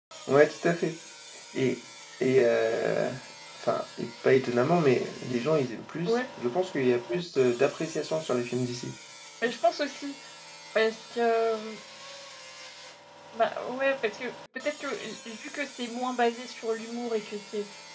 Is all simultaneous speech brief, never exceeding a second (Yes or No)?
Yes